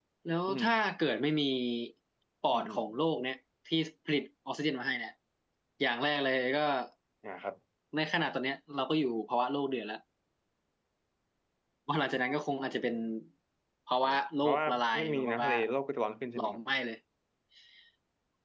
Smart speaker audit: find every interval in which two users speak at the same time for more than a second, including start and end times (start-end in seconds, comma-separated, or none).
14.0-15.5